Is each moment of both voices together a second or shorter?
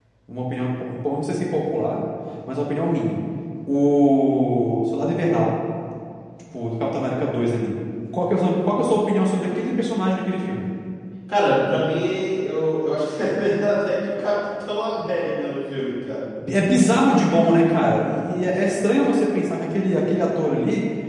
Yes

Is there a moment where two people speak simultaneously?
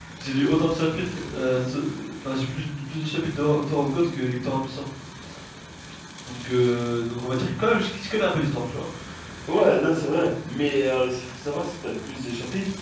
No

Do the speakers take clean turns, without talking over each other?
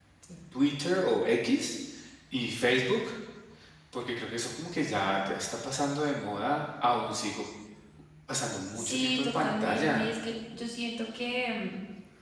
No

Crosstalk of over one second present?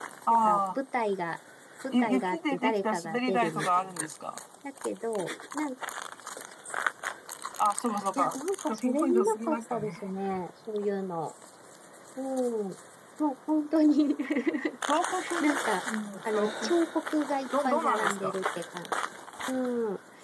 Yes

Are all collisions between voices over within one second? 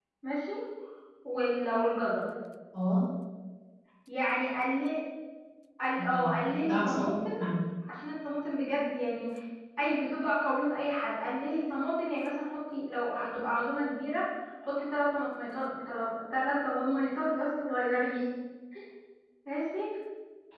No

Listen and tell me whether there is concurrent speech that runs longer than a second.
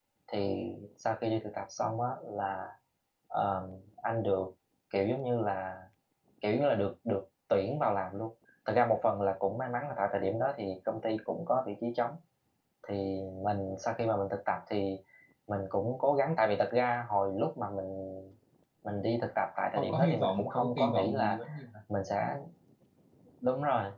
Yes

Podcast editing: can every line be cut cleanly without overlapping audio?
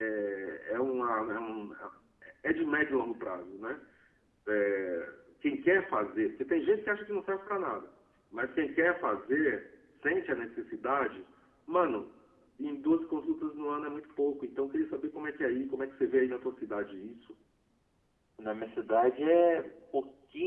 Yes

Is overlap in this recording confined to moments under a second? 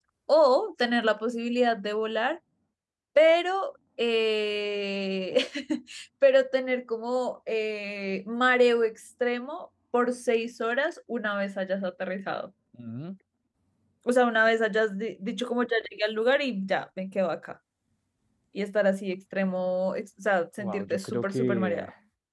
No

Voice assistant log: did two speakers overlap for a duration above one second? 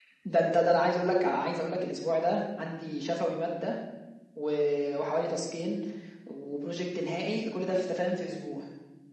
No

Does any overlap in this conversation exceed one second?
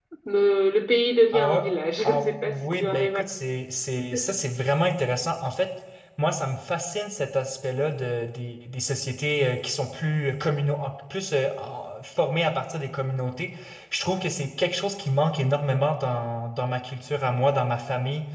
Yes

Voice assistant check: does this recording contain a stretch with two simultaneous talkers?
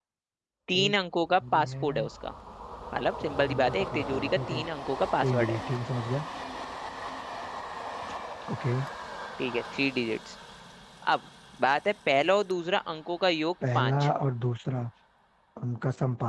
Yes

